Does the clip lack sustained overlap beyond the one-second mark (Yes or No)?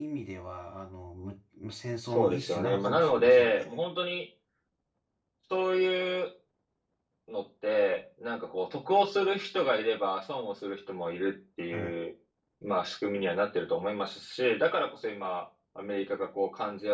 No